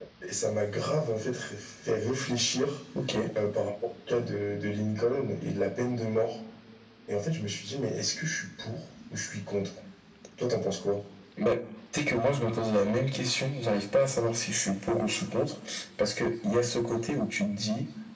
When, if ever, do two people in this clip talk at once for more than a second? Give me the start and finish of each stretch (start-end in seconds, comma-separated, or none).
none